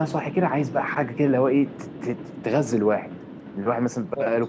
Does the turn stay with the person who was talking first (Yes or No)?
Yes